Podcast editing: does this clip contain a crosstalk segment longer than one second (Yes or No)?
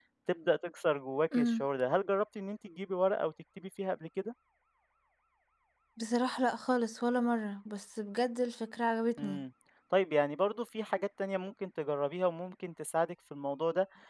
No